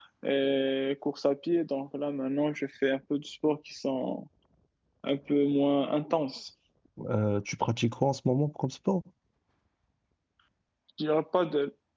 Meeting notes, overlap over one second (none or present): none